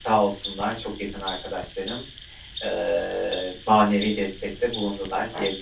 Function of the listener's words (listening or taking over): taking over